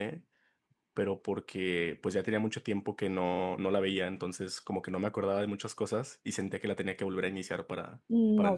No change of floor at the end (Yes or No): No